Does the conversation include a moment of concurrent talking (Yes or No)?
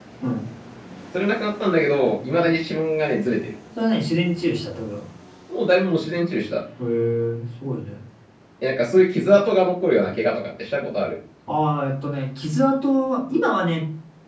No